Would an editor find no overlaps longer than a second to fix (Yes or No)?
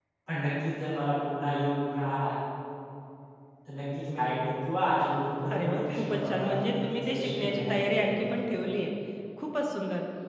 No